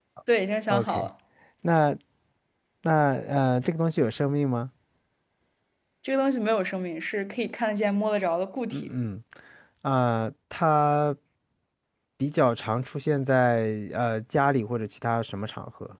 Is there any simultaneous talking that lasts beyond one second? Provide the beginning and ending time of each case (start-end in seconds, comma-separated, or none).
none